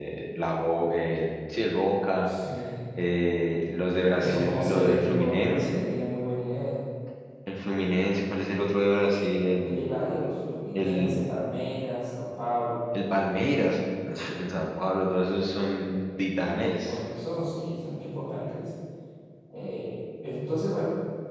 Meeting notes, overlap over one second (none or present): present